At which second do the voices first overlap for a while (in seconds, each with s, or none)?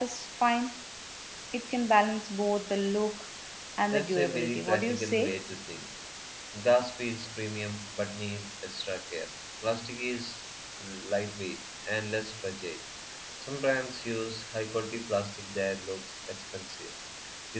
3.9 s